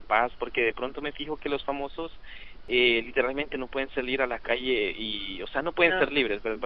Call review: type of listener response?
listening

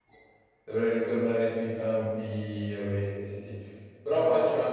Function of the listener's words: listening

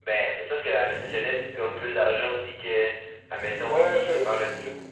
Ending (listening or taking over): taking over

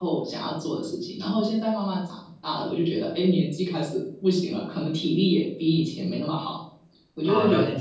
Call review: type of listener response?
taking over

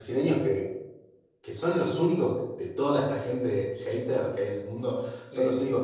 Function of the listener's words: listening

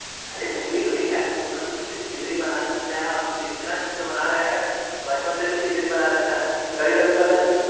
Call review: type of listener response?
listening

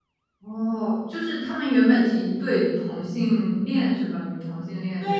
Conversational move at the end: taking over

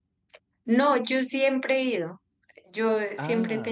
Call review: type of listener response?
listening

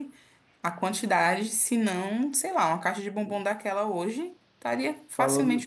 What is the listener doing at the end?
taking over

